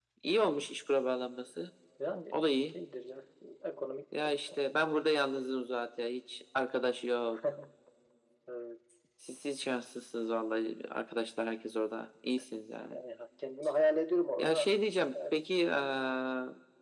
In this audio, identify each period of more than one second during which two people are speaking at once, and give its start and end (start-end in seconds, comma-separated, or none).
none